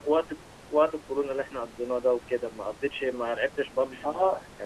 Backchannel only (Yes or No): No